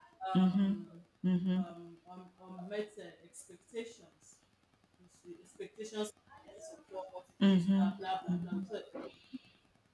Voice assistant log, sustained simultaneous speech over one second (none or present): none